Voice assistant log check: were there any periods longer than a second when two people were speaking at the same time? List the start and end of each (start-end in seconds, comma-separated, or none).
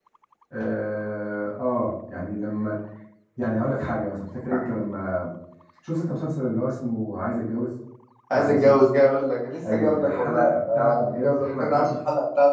9.7-11.9